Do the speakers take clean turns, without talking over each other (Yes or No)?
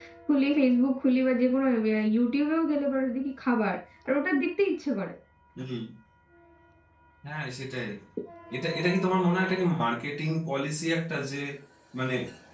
Yes